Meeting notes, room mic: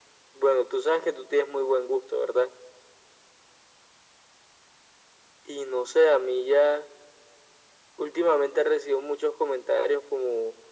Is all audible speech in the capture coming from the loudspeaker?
Yes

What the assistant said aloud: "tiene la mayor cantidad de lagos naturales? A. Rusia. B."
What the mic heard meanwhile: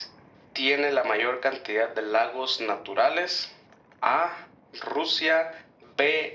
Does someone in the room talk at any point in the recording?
No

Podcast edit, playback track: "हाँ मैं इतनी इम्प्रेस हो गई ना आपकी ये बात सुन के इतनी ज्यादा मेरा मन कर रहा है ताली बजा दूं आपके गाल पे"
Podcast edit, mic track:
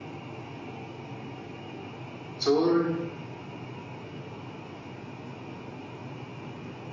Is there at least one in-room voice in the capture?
Yes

